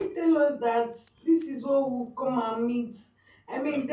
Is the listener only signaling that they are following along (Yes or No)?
Yes